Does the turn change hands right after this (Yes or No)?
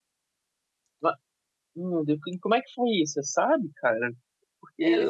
No